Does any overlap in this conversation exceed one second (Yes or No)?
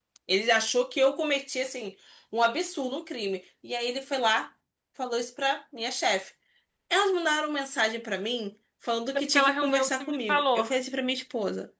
Yes